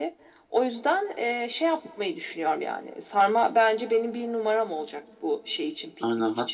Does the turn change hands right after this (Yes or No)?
Yes